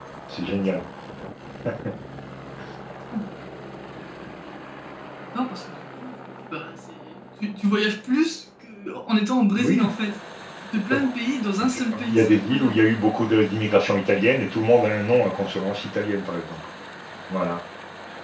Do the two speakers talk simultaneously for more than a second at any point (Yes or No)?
Yes